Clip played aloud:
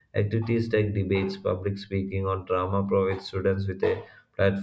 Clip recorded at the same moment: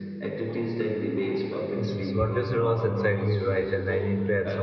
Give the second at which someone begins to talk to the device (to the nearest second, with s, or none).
2 s